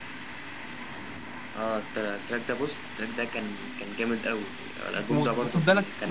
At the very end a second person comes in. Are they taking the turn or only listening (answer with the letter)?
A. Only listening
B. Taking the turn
B